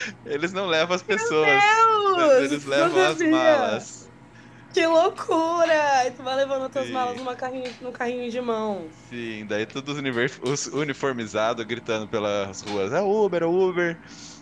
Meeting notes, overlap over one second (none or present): present